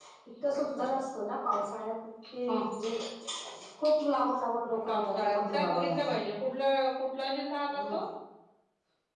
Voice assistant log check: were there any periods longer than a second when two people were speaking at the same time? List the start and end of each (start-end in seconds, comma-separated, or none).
4.9-6.1